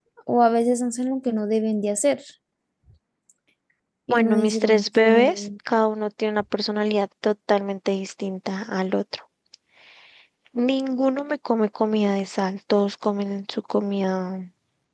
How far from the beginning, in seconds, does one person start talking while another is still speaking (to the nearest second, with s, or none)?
4 s